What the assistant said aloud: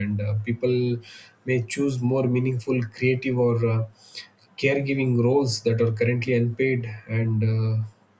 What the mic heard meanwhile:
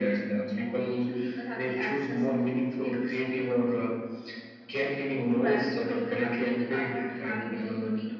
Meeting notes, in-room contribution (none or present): present